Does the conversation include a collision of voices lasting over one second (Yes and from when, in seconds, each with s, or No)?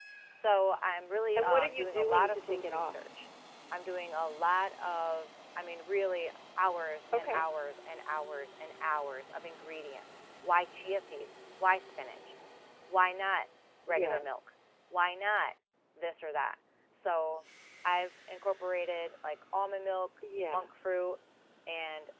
Yes, from 1.4 s